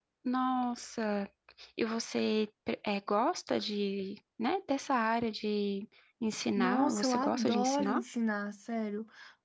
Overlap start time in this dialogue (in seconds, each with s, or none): 6.6 s